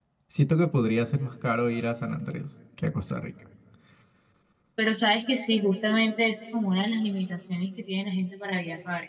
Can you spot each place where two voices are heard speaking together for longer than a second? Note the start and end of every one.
none

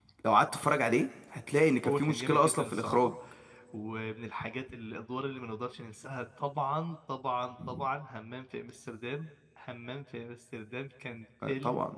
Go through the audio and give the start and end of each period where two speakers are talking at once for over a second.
1.9-3.1

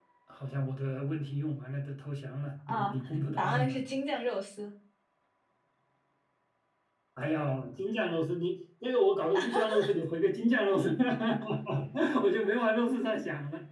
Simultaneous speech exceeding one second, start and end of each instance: none

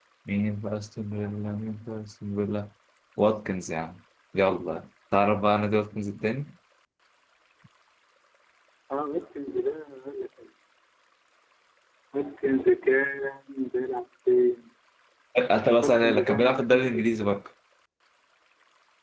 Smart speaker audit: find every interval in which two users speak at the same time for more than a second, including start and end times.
15.8-17.1

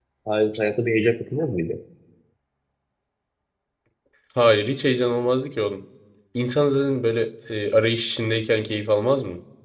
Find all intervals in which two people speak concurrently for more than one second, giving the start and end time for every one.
none

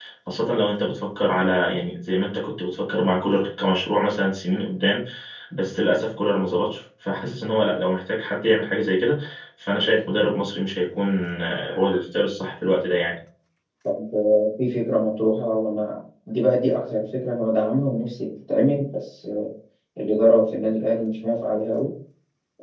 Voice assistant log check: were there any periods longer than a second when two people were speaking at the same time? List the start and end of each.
none

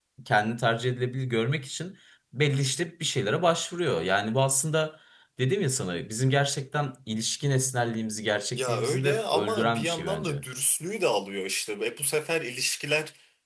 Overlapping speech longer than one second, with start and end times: 8.5-10.4

